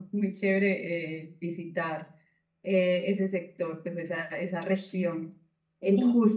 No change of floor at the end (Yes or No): Yes